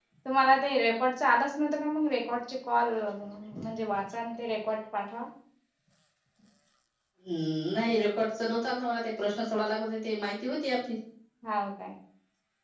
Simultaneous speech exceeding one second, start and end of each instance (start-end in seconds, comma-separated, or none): none